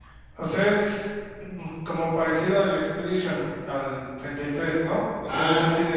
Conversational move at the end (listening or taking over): listening